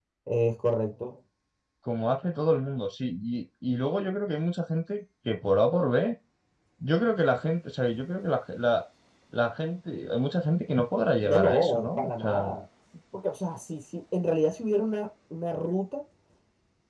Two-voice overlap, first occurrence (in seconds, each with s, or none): 11.2 s